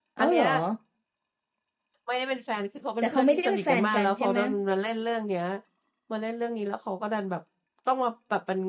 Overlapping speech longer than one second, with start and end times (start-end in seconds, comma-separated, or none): 3.0-4.4